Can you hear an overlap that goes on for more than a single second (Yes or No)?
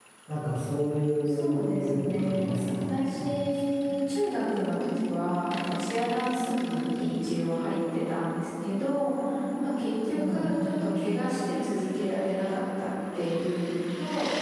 Yes